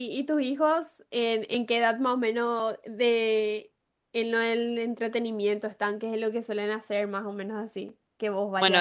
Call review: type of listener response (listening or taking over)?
taking over